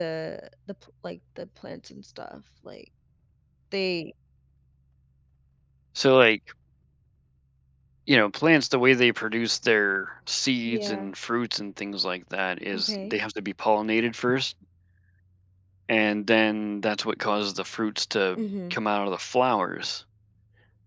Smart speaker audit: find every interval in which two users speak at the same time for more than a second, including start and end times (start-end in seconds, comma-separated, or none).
none